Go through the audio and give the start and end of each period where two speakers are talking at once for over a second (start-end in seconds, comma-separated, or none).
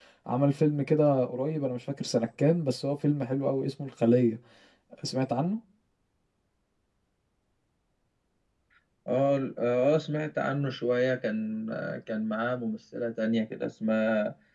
none